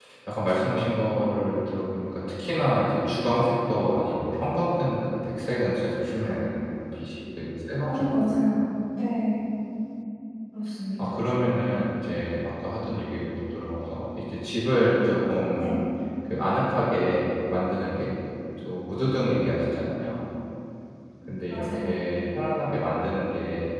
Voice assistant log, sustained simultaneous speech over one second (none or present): none